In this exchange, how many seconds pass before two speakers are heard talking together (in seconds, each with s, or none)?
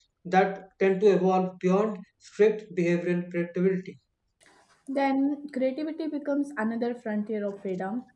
none